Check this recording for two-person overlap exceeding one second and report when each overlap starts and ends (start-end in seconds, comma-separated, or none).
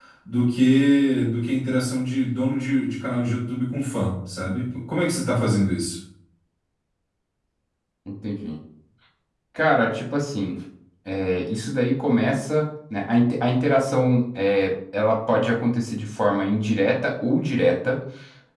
none